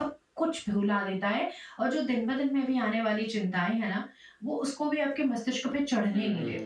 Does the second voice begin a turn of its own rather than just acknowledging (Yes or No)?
Yes